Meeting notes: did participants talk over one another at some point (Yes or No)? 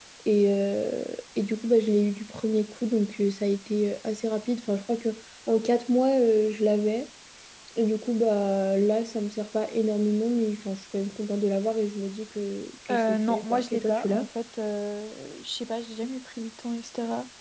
Yes